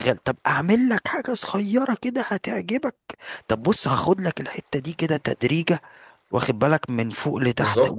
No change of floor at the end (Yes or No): Yes